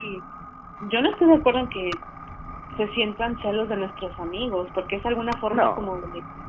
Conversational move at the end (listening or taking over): listening